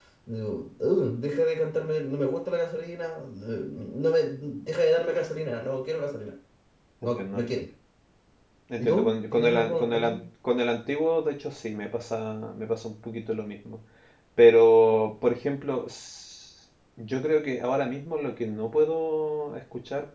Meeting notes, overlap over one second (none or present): present